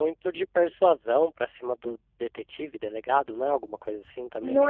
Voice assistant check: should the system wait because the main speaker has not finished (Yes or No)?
No